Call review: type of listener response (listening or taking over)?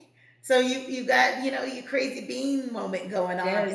taking over